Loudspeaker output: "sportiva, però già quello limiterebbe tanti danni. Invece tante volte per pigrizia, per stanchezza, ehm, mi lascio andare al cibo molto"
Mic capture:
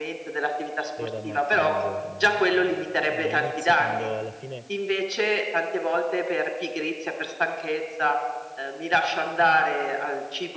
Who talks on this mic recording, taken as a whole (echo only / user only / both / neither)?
both